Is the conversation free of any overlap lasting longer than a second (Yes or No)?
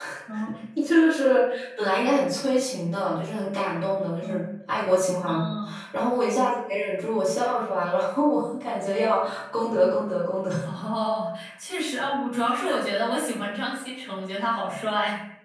Yes